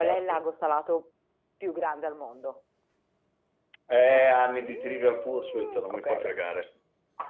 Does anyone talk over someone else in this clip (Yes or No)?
Yes